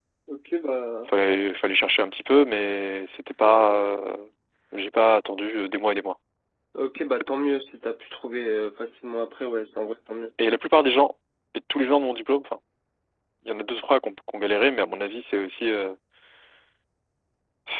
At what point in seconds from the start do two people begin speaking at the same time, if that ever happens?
none

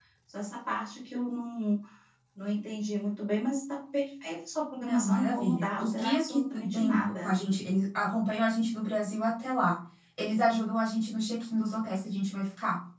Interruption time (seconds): 4.8 s

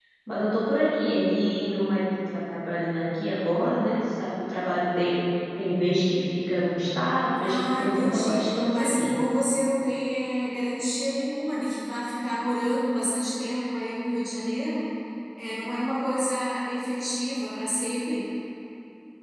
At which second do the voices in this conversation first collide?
7.4 s

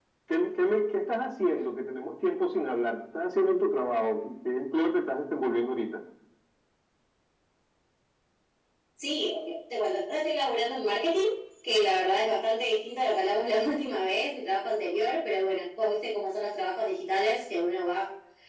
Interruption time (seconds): none

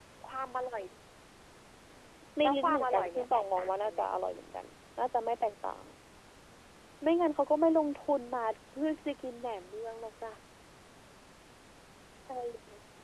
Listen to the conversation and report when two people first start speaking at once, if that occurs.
2.4 s

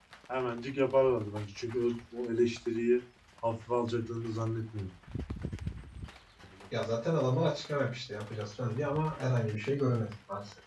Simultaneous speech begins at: none

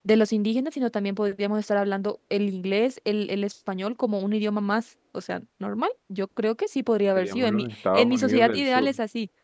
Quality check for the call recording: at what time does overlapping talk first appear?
7.2 s

